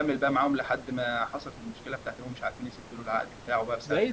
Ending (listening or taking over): taking over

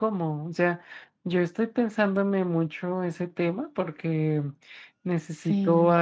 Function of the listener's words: listening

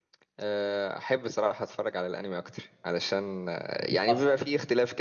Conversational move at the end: listening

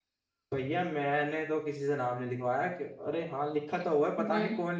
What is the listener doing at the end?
listening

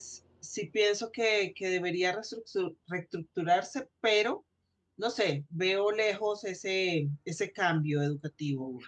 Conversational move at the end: taking over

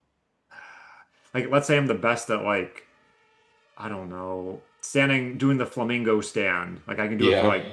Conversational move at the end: listening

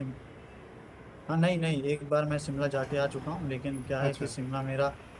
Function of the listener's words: listening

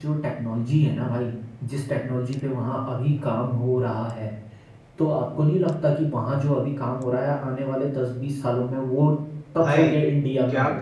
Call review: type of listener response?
taking over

